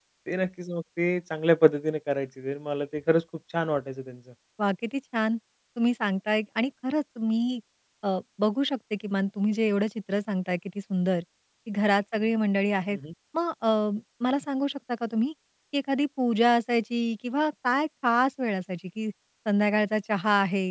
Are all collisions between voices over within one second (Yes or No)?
Yes